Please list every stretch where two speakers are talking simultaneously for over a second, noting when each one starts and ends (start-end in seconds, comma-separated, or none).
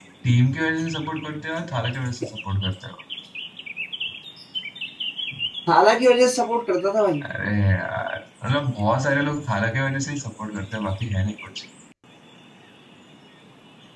none